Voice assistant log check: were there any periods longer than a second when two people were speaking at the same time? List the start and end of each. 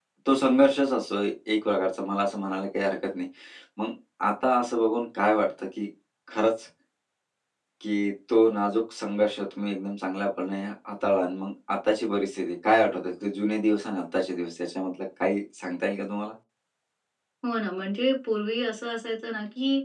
none

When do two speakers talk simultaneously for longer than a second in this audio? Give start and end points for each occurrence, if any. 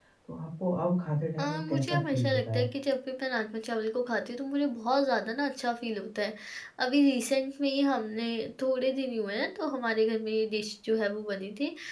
1.4-2.7

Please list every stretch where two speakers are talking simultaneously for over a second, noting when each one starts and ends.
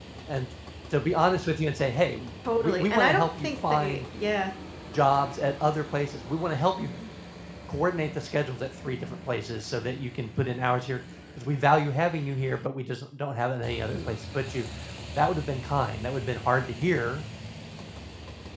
2.6-4.0

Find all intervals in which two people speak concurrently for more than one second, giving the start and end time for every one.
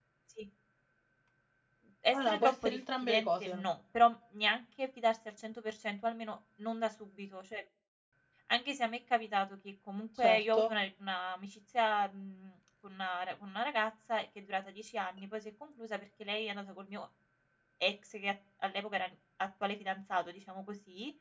2.1-3.6

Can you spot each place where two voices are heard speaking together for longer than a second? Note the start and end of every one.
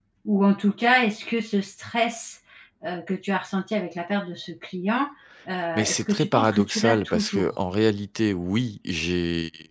5.8-7.5

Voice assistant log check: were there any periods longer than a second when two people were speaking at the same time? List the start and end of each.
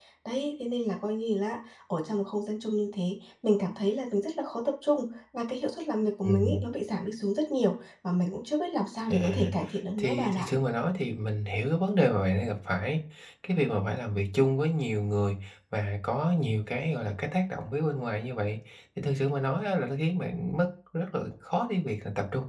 none

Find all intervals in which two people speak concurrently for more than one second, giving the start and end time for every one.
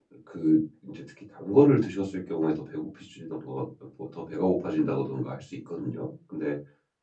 none

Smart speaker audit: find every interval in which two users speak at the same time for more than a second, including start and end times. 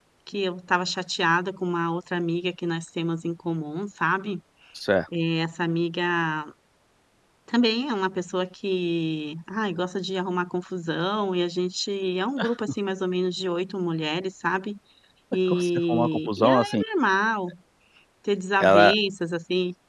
15.5-16.8

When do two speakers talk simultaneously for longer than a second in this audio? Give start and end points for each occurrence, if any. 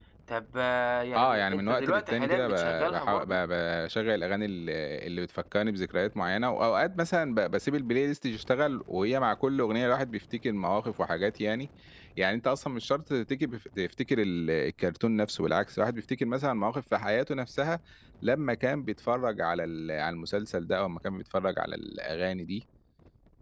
1.2-3.4

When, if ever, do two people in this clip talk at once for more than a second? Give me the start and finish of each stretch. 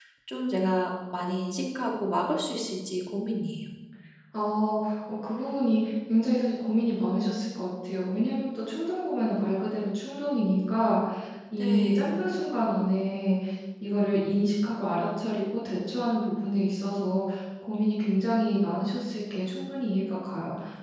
none

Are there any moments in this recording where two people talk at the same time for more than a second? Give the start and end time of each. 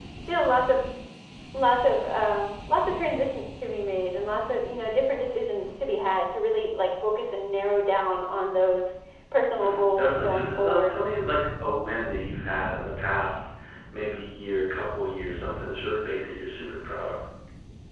9.6-11.0

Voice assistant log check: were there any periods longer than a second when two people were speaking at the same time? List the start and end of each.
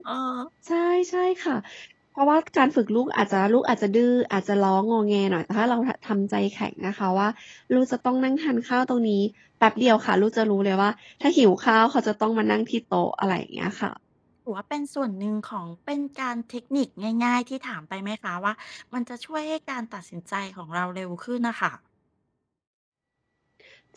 none

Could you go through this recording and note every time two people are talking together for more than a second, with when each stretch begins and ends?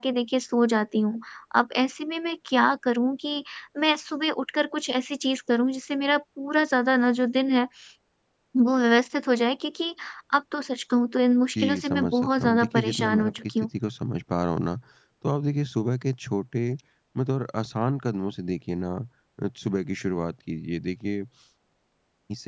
11.6-13.7

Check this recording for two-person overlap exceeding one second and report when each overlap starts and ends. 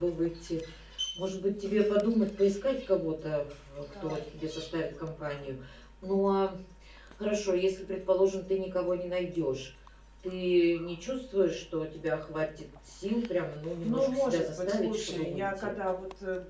13.8-15.7

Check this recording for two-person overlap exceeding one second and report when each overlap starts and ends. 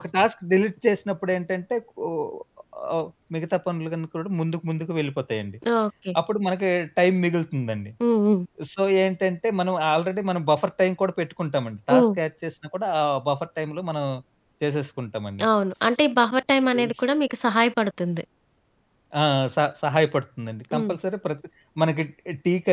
none

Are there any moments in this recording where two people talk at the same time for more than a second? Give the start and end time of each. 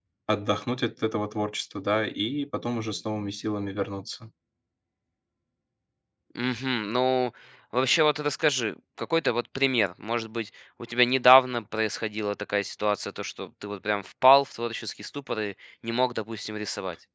none

